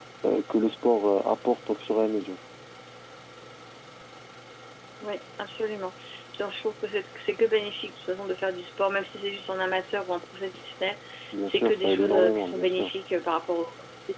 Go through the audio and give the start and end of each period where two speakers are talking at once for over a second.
11.4-12.9

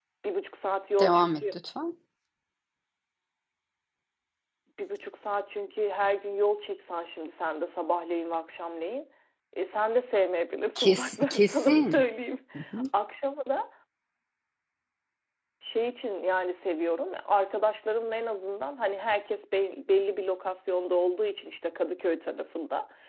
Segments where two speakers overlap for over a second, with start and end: 10.8-12.0

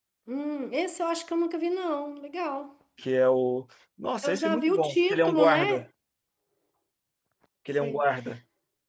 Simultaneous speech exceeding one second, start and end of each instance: 4.2-5.8

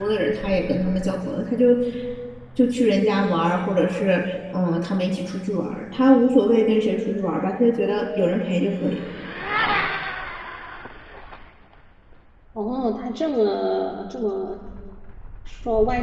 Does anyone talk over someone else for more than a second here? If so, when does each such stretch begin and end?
none

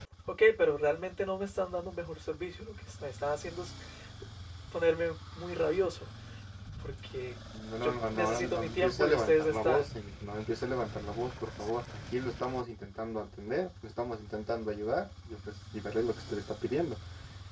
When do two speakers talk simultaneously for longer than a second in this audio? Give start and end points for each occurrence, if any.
7.8-9.8

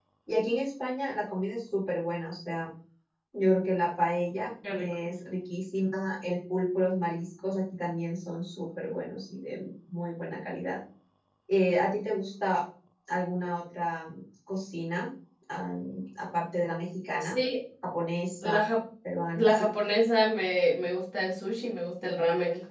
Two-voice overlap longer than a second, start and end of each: none

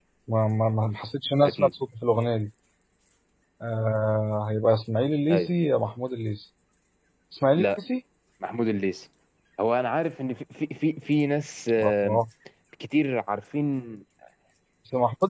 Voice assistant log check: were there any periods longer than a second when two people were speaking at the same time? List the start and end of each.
none

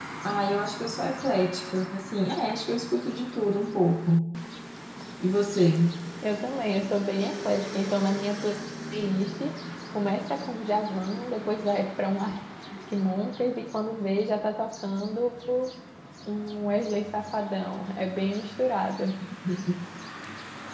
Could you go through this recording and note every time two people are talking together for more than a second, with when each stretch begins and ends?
none

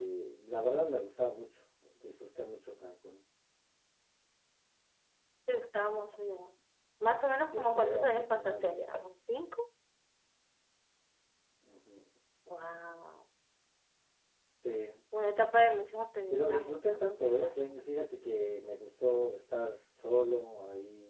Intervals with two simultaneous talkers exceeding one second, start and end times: 7.3-8.8, 16.3-17.9

